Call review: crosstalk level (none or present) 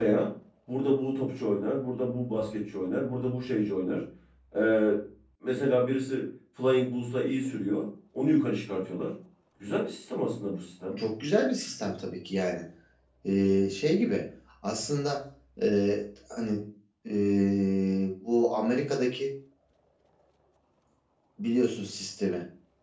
none